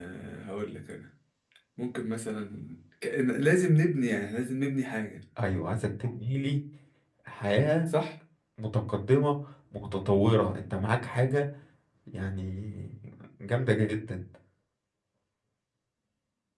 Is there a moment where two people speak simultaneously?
No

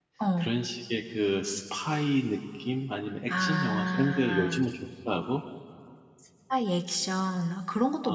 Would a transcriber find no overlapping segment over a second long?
No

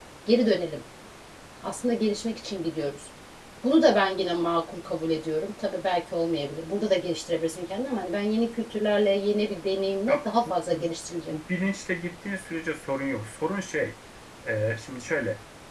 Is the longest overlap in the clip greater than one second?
No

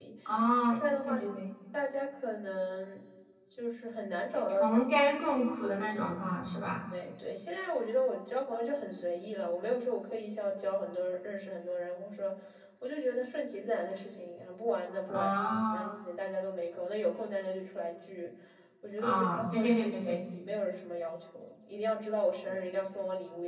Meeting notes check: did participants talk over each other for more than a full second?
Yes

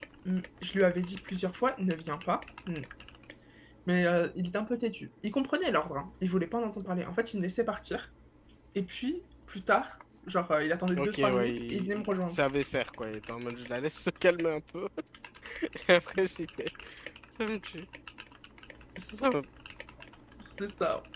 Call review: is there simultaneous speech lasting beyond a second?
Yes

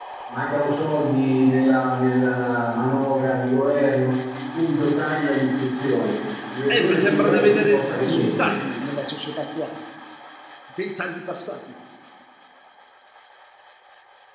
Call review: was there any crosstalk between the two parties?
Yes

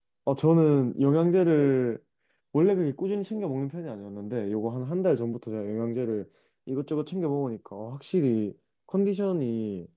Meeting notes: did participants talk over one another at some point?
No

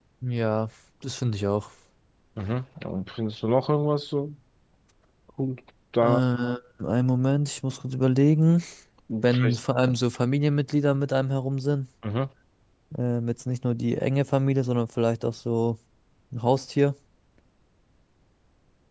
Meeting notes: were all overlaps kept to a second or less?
Yes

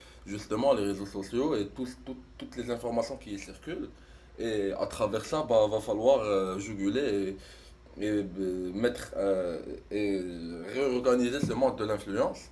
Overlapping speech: No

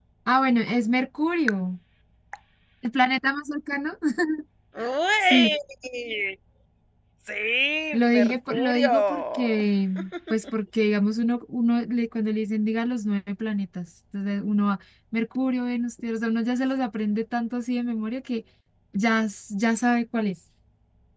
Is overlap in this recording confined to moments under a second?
No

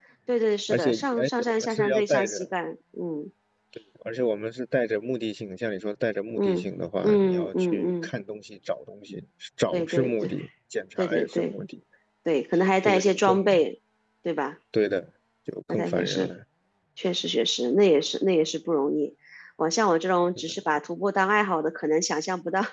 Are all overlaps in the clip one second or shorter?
No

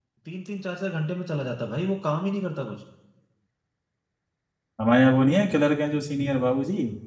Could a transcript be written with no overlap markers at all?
Yes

